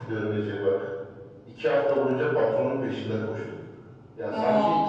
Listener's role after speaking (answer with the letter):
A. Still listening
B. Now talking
A